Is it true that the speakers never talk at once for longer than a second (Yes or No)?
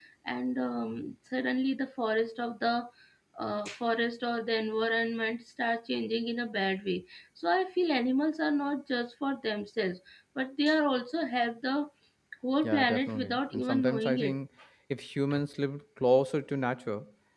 No